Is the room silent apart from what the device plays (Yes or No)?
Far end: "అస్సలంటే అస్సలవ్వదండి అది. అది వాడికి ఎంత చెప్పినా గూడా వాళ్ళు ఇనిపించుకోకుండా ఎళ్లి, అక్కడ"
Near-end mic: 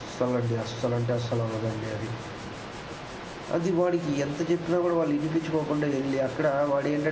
Yes